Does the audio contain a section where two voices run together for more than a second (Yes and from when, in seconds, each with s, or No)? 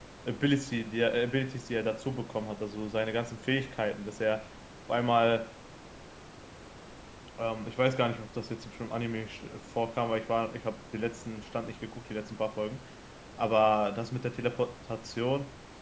No